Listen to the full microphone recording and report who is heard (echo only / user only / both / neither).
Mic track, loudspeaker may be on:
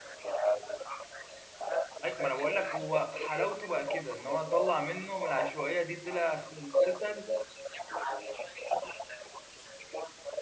both